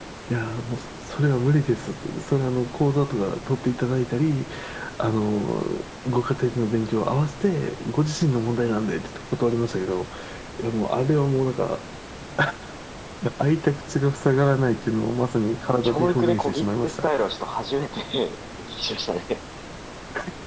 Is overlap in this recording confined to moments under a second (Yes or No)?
No